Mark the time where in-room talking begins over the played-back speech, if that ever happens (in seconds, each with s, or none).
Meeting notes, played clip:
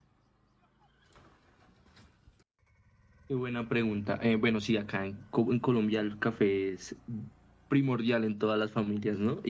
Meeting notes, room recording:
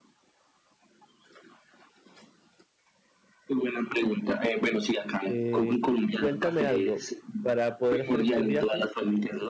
5.3 s